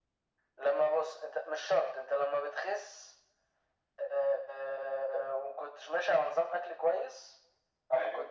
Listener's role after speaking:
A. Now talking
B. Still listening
B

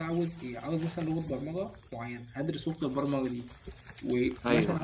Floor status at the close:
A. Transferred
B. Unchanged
B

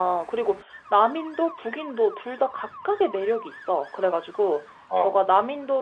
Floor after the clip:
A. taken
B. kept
B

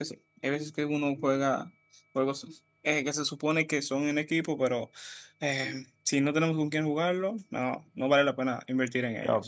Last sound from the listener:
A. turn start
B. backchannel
A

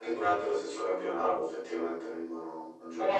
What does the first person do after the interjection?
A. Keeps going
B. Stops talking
B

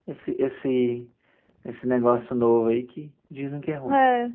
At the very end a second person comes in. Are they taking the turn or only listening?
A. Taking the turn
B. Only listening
A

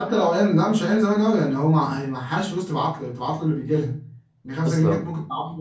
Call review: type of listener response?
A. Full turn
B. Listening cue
B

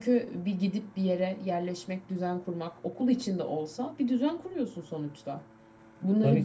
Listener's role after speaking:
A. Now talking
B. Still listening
B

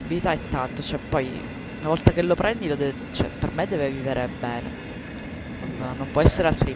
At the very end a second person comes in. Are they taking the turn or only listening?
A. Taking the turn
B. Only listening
B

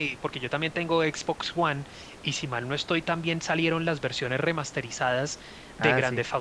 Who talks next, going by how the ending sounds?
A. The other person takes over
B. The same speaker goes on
B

